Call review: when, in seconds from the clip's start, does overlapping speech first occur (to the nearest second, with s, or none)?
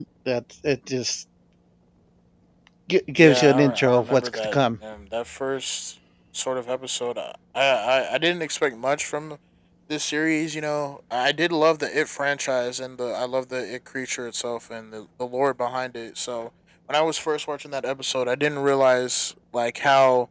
3 s